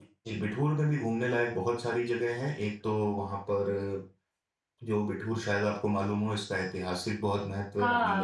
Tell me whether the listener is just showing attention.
No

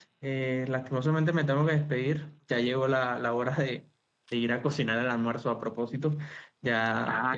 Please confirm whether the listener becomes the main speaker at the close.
No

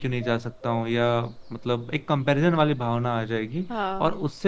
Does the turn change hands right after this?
No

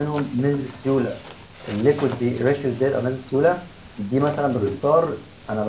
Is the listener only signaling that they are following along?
Yes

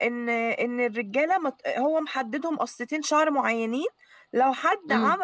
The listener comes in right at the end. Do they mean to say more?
No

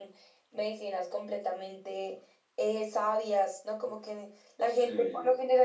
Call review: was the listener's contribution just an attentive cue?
Yes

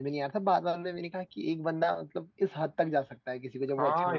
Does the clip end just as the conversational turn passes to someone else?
Yes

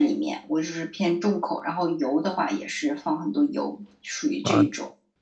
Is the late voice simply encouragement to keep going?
No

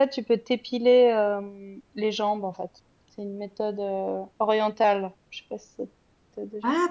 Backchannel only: No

